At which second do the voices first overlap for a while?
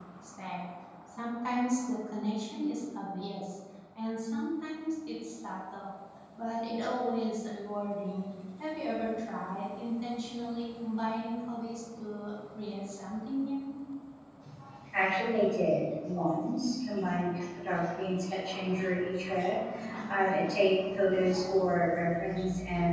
none

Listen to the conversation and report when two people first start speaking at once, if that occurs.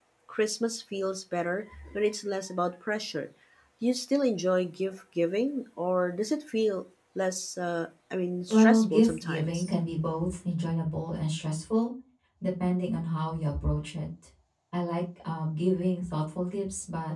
8 s

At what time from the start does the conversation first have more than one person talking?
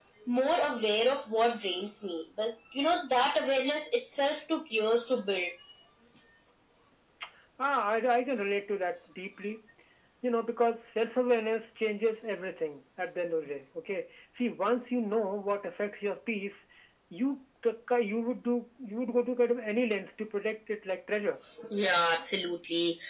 none

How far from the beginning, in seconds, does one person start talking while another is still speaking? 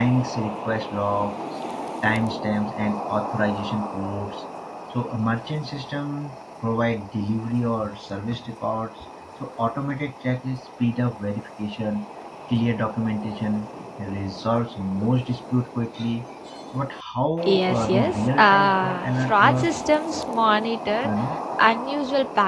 18 s

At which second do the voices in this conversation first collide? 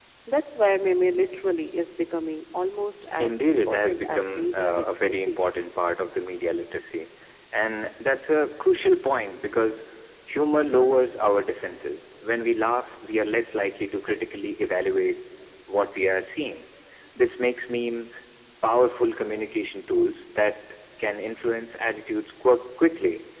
3 s

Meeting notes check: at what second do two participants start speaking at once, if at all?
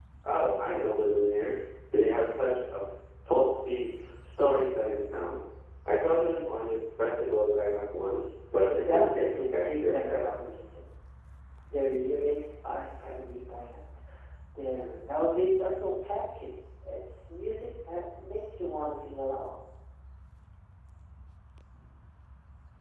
9 s

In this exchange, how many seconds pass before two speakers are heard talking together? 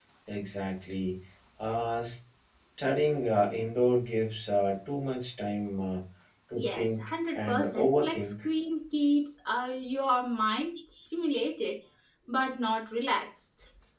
7 s

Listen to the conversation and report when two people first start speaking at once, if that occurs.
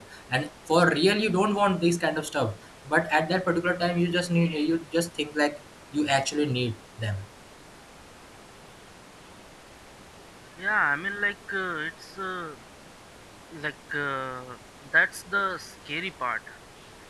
none

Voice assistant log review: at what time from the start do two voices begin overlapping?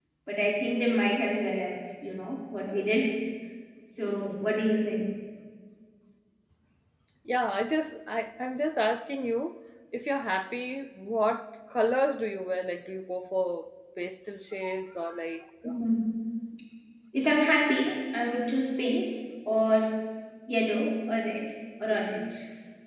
none

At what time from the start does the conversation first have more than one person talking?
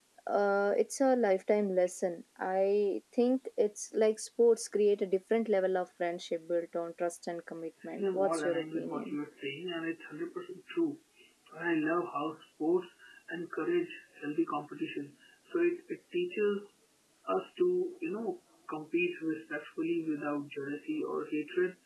8 s

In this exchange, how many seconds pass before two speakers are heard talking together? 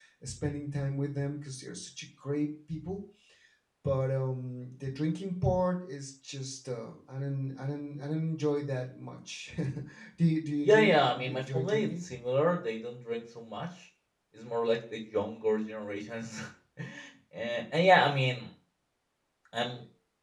11 s

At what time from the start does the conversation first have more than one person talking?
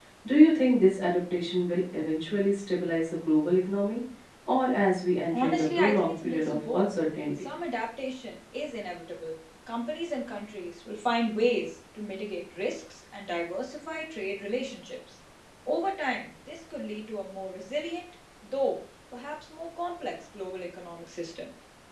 5 s

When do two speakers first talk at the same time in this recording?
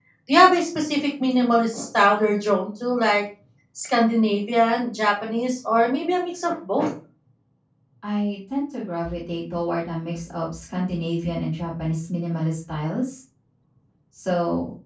none

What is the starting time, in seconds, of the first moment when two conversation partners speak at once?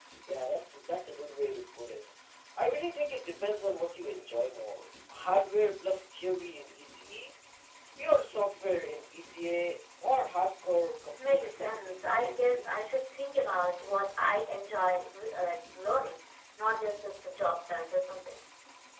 11 s

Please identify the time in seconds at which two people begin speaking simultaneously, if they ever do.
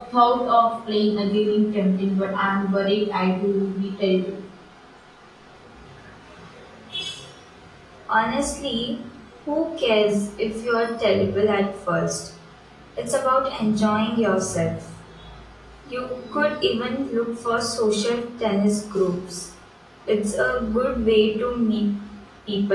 none

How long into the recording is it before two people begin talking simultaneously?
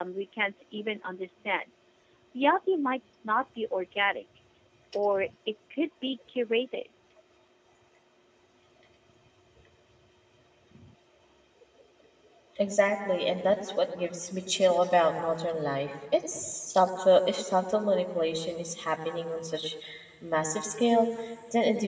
none

